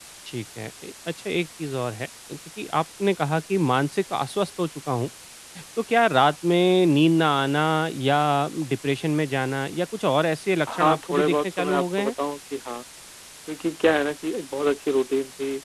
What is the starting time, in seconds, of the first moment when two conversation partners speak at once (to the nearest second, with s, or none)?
11 s